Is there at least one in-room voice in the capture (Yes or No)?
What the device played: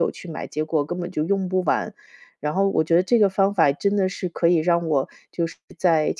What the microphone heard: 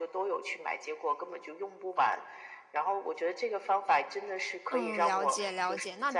Yes